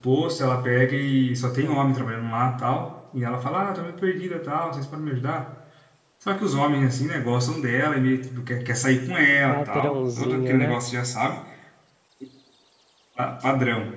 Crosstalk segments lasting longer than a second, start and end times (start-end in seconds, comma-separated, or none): 9.5-10.8